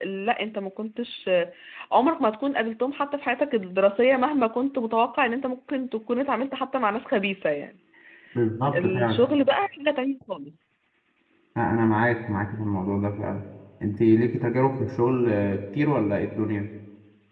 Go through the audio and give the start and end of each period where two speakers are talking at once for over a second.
none

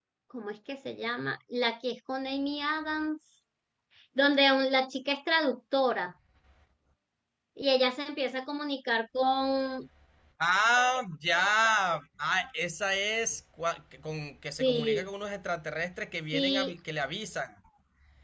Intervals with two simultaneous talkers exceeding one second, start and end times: none

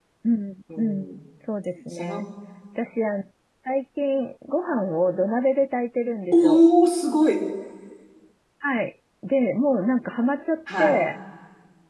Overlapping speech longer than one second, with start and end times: none

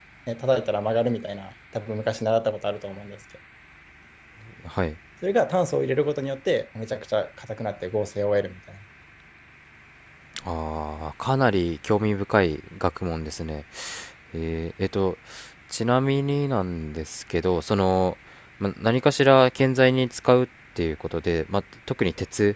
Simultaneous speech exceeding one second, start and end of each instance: none

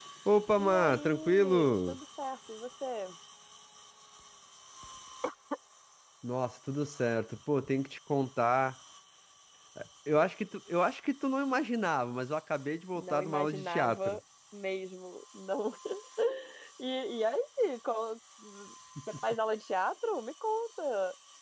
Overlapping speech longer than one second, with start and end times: 0.6-1.9, 12.9-14.2

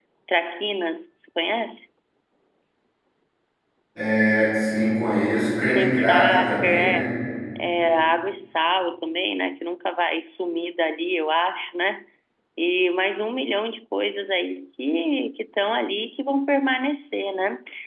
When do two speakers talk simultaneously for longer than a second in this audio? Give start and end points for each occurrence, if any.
5.7-7.1

